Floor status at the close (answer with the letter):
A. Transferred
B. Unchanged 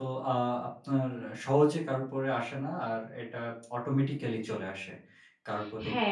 A